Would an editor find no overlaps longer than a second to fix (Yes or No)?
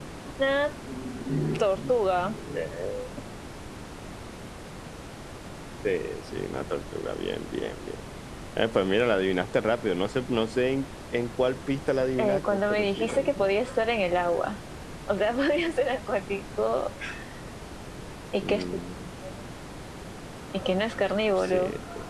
No